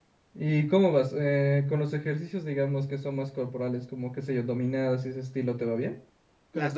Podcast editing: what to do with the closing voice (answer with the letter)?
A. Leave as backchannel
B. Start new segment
B